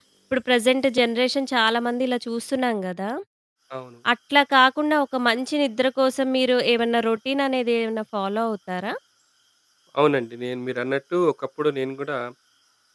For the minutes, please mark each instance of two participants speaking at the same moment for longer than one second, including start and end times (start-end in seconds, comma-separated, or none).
none